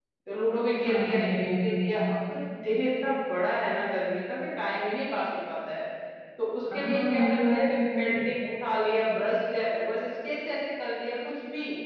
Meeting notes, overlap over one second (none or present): present